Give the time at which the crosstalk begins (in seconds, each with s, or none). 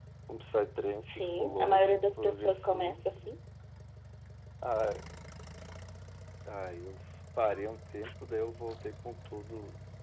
1.2 s